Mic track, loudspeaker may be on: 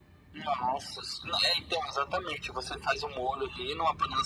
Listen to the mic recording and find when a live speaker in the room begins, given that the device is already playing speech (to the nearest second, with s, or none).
none